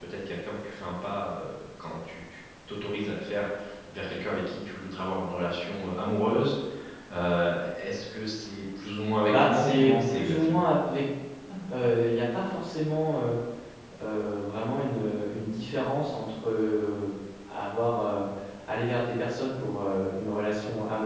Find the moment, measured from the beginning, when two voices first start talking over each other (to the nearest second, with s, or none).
9 s